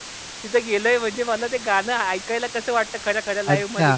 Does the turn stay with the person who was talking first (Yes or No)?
No